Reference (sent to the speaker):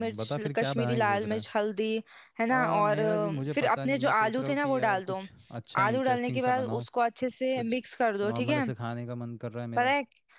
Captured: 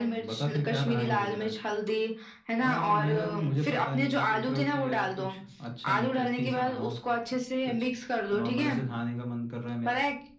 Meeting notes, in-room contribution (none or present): none